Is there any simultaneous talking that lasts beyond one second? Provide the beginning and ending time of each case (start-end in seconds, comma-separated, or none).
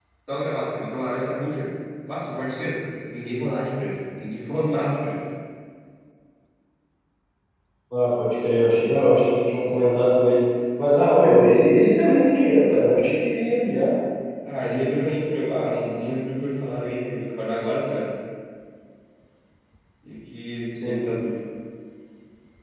none